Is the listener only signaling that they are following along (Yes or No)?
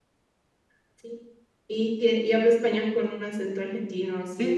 No